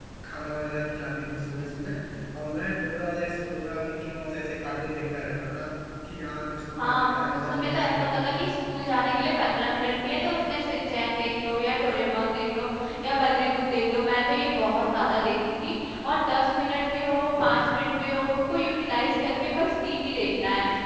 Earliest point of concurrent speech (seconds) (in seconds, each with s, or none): 6.8 s